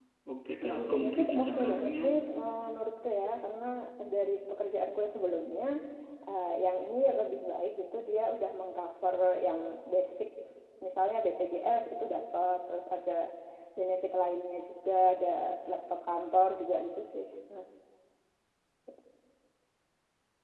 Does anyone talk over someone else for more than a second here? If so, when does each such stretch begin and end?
0.7-1.9

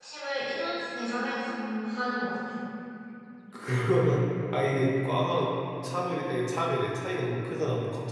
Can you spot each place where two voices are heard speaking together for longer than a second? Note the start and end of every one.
none

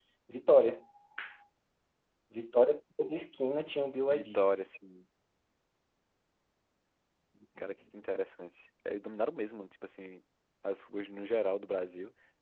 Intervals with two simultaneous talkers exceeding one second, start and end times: none

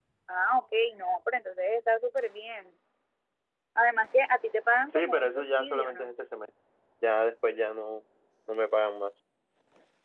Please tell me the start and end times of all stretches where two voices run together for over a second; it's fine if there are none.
4.9-6.1

